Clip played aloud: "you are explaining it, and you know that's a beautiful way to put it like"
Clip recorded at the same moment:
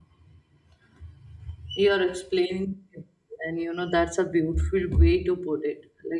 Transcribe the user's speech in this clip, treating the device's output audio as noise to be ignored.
none

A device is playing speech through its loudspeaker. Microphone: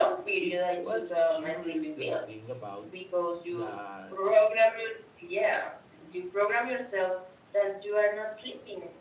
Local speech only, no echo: it was curious the thing about that

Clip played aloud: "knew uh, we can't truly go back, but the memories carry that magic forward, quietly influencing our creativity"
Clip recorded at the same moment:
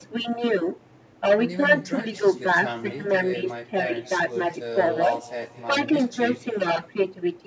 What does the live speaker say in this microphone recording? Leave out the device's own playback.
And even interactions with family, the way my parents would uh, laugh at my mischief,

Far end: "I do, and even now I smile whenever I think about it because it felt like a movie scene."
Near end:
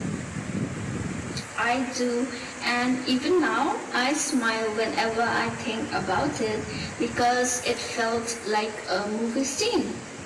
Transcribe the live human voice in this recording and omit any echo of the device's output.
none

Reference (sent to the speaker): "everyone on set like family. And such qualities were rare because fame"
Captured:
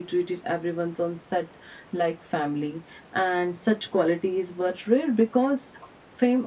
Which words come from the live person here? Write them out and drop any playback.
none

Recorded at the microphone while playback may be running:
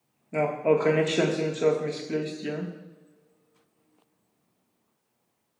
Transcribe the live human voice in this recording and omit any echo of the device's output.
no our connection seems to have misplaced you know

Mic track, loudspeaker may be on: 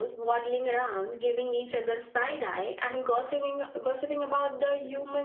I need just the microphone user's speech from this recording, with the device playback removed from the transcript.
none

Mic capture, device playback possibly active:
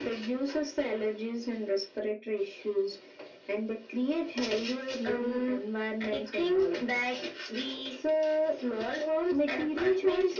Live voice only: none

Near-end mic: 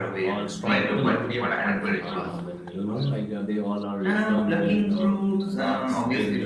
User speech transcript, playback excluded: breed or what, what whatever it was.

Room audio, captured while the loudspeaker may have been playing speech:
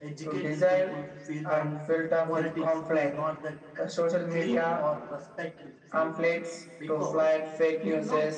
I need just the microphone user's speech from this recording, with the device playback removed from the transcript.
none

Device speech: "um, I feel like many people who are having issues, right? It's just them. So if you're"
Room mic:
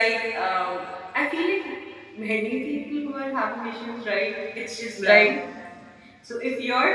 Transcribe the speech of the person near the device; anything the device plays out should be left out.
right?

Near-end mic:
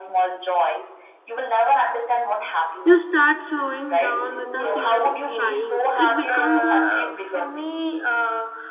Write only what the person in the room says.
You start slowing down without even trying. It becomes a

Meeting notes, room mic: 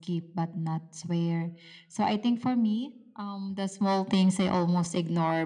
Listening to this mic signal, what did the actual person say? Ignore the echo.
none

